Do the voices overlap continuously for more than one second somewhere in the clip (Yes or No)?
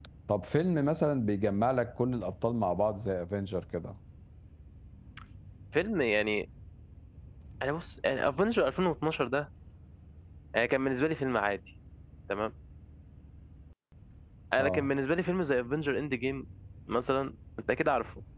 No